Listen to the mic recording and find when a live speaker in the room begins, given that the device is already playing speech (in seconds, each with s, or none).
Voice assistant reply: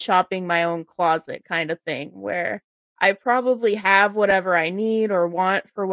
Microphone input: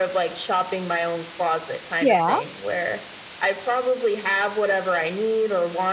2.0 s